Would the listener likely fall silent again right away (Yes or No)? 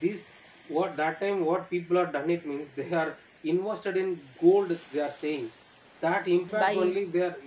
Yes